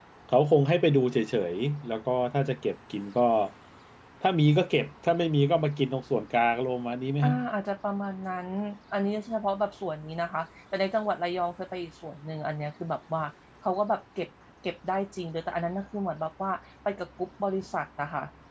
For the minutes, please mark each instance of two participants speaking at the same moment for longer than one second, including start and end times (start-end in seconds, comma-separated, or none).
none